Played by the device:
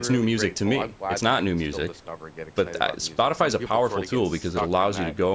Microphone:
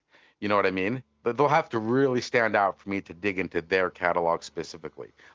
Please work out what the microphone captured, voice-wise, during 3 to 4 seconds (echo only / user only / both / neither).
user only